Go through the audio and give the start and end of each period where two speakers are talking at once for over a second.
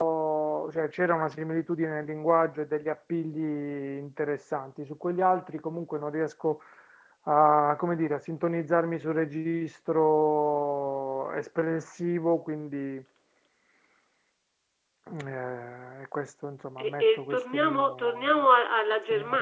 16.8-18.3

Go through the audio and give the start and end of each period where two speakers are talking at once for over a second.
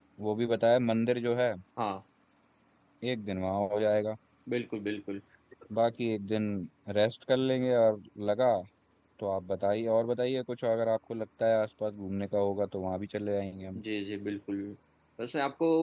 none

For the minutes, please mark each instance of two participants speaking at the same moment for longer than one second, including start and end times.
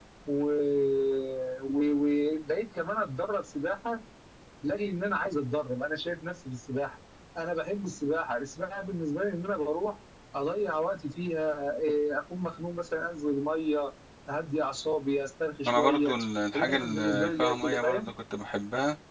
16.5-18.1

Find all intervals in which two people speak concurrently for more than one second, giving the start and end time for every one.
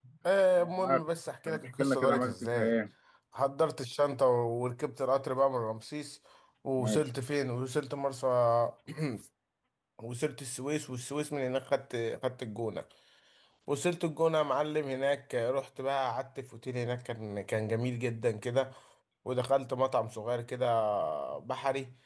1.5-2.7

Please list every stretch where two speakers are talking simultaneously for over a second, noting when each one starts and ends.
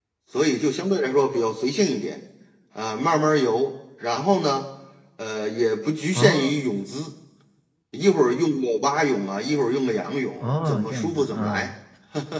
10.4-11.7

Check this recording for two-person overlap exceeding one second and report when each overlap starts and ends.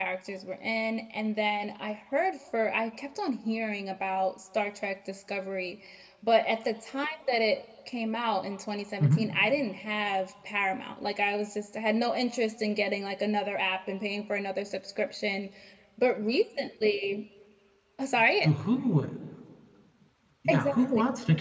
none

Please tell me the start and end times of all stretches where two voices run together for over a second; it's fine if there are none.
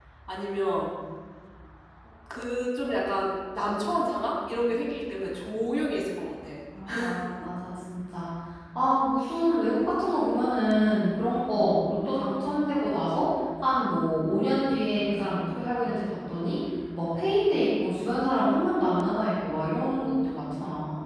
none

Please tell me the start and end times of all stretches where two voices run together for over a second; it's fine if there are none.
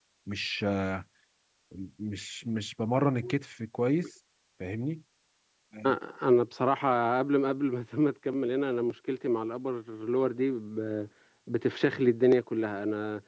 none

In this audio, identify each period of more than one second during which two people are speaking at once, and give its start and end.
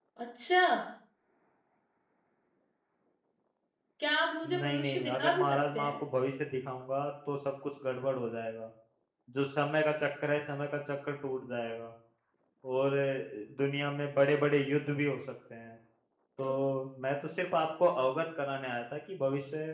4.6-5.9

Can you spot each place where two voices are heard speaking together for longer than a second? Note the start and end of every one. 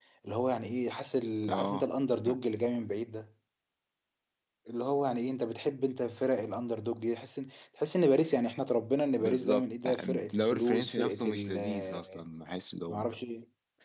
9.2-12.2

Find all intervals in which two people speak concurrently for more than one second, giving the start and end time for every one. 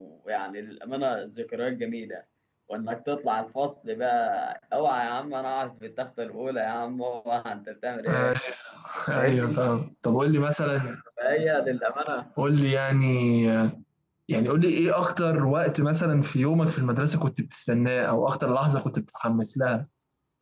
none

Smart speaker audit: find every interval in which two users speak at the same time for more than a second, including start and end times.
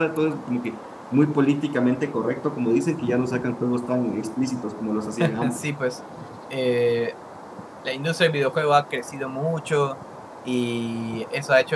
none

